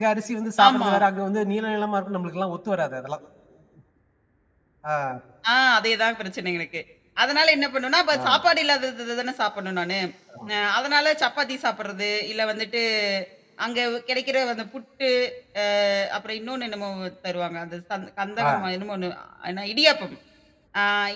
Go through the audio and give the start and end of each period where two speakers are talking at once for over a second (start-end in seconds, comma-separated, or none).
none